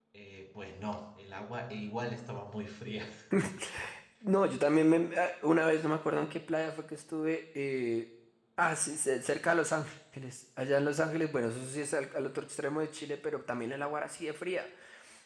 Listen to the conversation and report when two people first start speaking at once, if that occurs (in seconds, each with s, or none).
none